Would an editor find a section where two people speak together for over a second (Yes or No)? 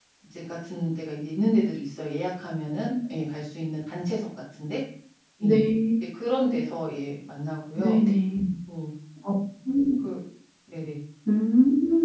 No